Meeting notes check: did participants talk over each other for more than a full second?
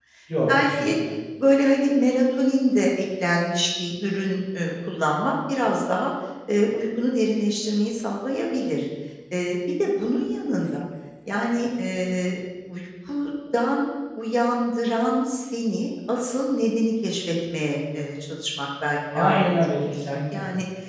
Yes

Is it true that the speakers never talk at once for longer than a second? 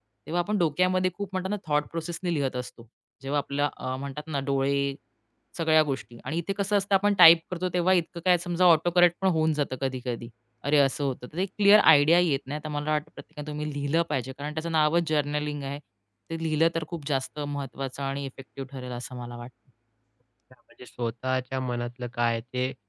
Yes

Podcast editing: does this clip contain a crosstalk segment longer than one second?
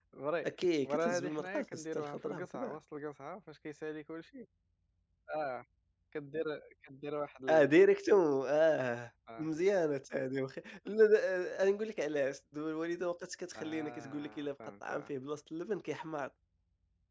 Yes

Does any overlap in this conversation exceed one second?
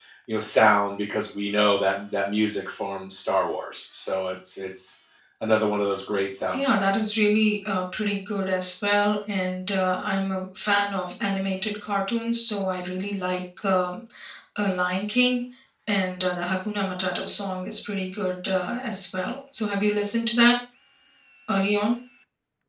No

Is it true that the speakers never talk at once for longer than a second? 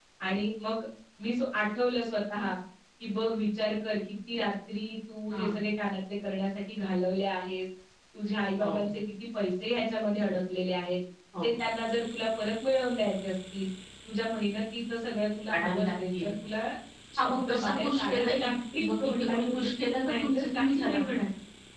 No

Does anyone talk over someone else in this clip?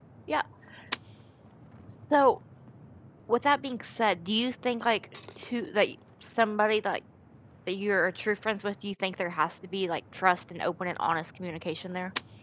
No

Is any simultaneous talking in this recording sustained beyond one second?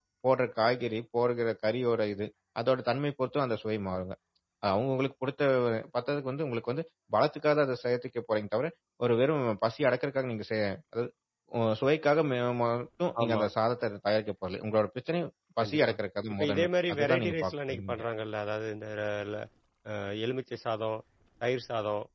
Yes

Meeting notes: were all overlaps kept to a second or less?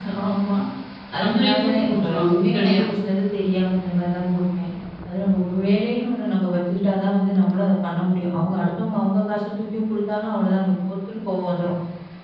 No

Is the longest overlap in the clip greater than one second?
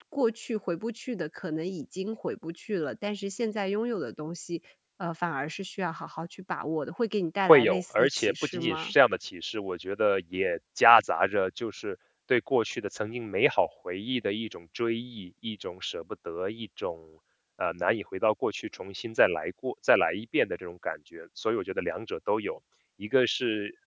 Yes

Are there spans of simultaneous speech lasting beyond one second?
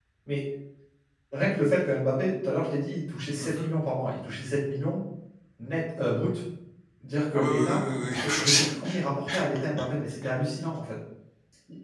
Yes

